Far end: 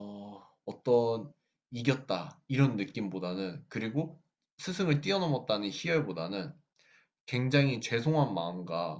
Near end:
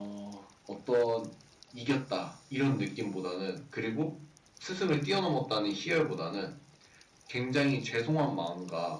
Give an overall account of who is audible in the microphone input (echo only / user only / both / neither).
echo only